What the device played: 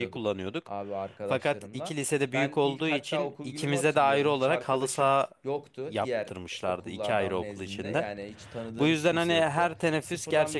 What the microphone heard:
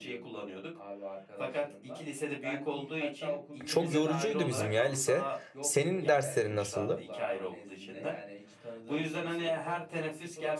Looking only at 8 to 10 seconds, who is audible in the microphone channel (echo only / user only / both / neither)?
echo only